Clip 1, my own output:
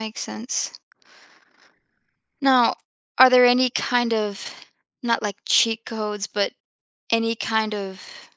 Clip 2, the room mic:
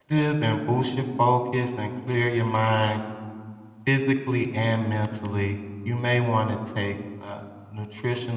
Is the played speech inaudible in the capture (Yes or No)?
Yes